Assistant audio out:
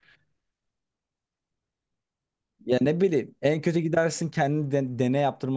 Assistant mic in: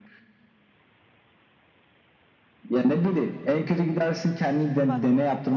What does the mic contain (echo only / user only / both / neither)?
both